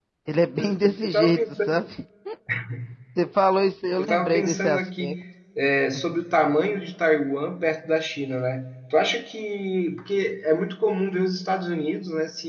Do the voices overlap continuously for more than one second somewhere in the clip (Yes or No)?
Yes